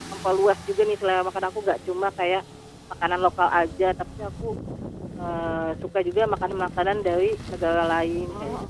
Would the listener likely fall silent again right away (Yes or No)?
No